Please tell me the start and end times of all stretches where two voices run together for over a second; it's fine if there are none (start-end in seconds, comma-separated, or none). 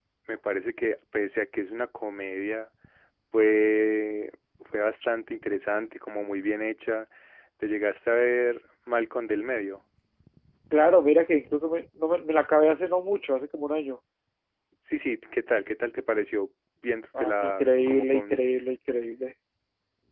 17.2-18.5